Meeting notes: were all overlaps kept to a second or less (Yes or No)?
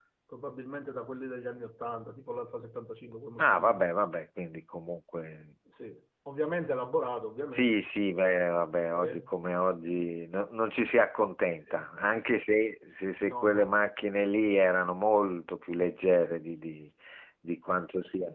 Yes